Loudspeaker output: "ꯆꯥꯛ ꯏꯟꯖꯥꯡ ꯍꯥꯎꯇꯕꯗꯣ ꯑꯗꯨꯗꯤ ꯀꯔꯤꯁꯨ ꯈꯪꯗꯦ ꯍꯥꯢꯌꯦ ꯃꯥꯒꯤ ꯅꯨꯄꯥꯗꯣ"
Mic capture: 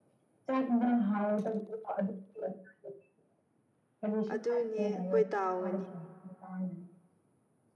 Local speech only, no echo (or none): ꯑꯗꯨꯅꯦ ꯑꯩꯈꯣꯏ ꯇꯥꯎꯒꯅꯤ